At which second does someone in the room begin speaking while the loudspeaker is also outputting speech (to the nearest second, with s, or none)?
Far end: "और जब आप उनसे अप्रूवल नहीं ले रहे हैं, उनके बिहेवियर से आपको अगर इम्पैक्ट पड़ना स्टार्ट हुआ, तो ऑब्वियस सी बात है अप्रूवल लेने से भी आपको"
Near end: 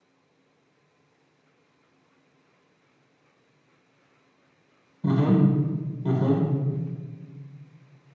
5 s